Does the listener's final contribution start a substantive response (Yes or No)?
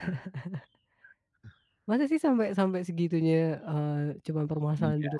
Yes